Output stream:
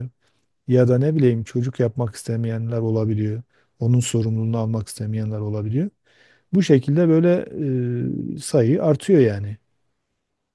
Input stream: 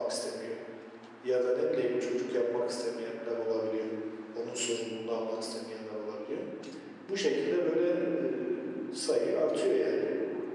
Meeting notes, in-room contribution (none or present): none